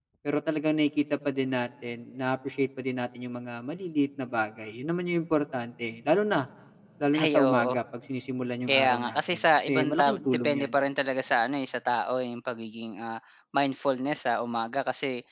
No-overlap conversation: No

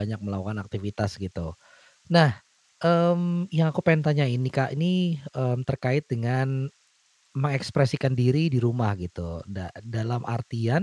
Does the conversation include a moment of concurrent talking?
No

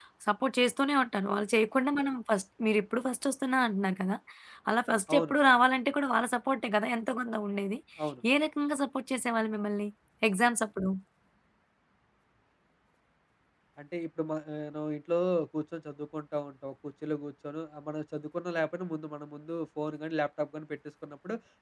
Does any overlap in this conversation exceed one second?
No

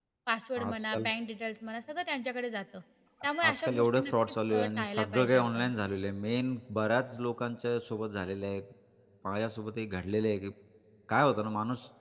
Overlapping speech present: Yes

